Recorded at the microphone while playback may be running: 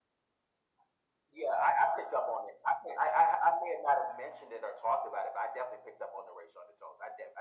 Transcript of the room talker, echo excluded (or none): none